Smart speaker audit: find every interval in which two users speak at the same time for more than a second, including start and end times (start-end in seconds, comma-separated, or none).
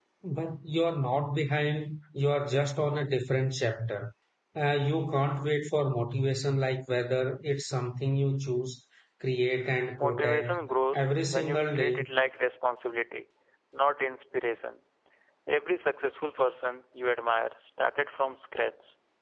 10.0-12.0